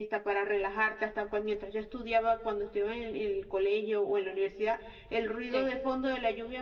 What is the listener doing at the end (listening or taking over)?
listening